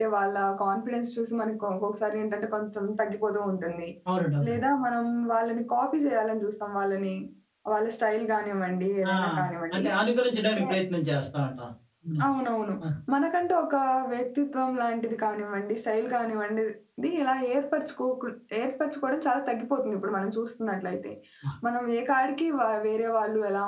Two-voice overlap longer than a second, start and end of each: none

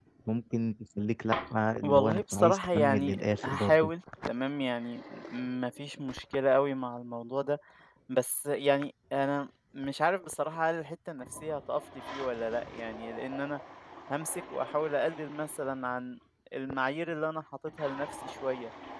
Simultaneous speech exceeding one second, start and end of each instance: 1.8-3.9

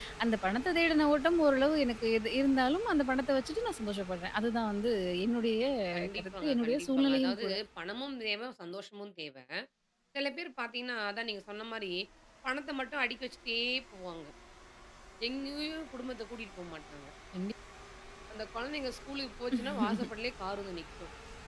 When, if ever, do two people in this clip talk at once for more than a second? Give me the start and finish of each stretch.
6.2-7.5

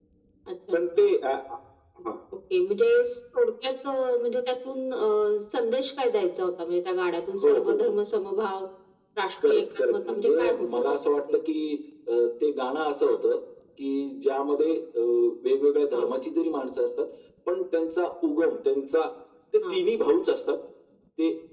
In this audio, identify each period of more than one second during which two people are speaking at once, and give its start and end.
9.4-11.4

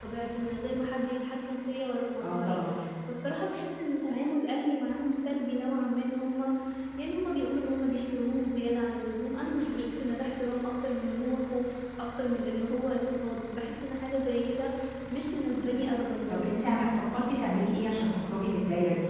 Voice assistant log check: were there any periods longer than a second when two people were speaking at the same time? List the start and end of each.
none

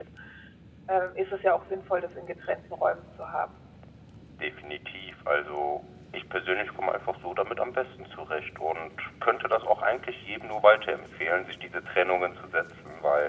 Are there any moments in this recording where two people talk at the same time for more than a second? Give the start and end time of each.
none

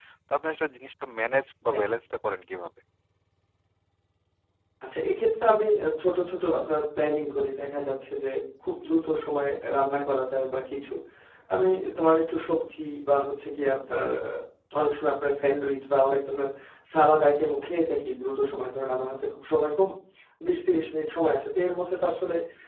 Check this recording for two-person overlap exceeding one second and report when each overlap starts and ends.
none

